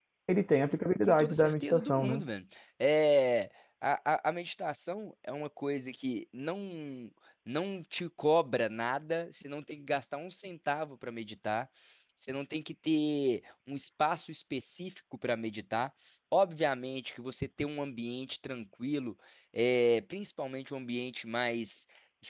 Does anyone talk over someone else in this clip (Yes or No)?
Yes